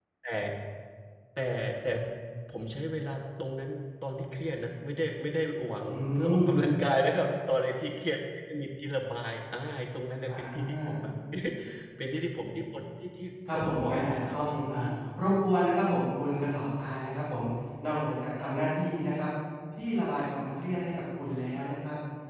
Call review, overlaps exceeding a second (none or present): present